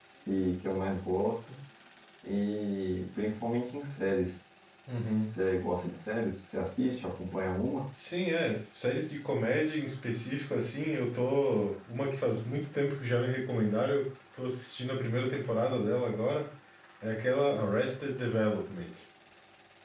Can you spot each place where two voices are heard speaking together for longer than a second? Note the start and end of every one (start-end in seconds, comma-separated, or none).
none